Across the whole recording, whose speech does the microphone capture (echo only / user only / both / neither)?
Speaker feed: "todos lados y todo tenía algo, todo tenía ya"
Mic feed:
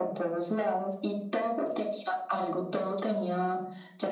echo only